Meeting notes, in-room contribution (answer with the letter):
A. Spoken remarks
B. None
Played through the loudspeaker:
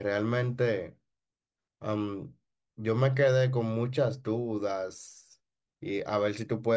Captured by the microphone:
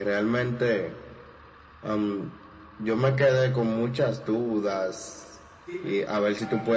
A